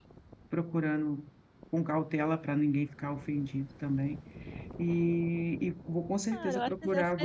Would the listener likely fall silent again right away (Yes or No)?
No